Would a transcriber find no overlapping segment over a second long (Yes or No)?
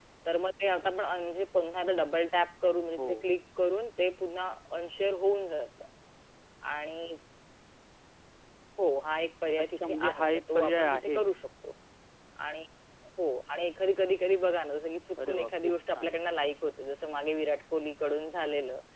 No